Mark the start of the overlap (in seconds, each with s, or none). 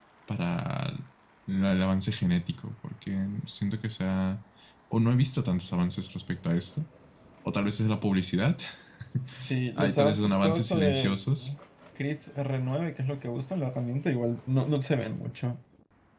9.8 s